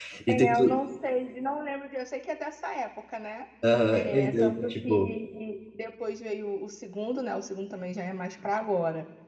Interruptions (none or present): present